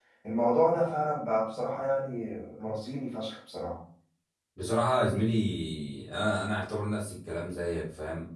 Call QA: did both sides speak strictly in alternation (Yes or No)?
Yes